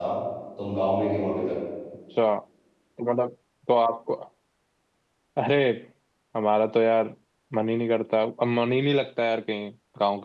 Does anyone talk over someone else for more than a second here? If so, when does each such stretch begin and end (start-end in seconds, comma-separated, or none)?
none